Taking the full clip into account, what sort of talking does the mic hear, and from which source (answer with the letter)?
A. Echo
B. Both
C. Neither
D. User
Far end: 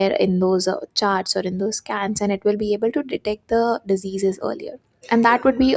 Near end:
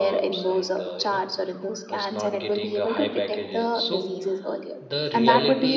B